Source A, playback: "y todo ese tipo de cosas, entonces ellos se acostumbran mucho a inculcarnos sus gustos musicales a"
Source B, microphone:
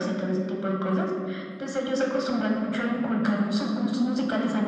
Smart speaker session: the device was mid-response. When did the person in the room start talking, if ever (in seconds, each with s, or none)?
none